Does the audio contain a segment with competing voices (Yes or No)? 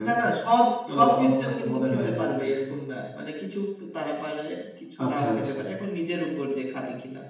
Yes